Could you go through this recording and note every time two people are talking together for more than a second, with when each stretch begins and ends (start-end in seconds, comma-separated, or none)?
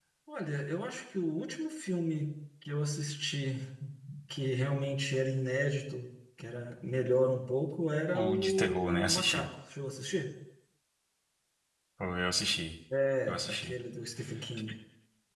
8.1-9.5